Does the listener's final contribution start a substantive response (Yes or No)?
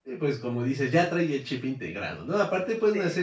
No